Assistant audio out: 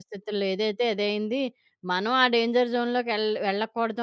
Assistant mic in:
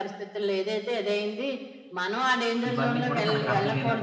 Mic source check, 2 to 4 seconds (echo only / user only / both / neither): both